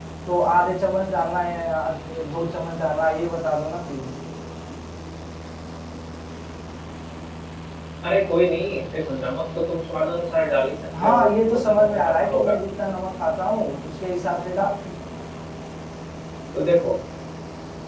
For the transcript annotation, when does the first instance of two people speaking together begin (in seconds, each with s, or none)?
10.9 s